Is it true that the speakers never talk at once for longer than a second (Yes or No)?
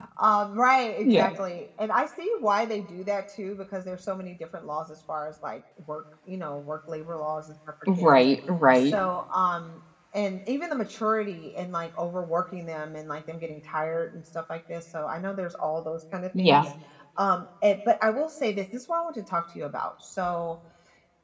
Yes